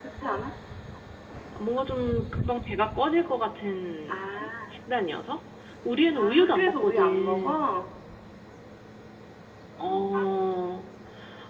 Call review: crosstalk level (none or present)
present